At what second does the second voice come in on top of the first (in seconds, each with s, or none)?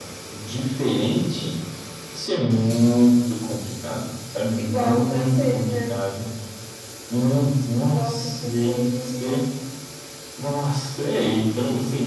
4.6 s